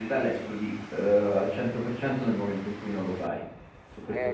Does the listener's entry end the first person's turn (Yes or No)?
Yes